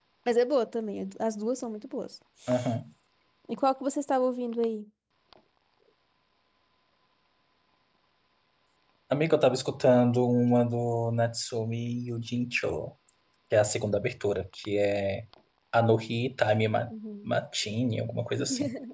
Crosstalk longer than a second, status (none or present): none